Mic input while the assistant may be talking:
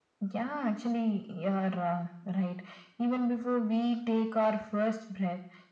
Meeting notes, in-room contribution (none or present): none